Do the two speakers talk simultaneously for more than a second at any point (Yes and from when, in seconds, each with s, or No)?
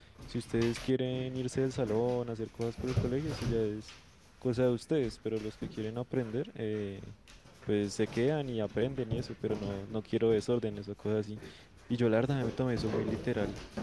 No